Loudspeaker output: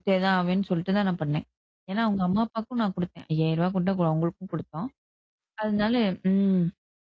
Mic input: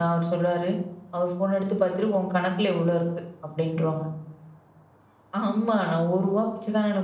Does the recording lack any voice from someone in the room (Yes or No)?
No